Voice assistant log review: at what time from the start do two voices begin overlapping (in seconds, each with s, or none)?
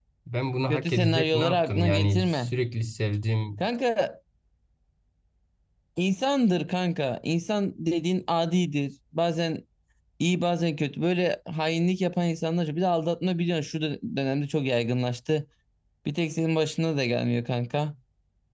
0.7 s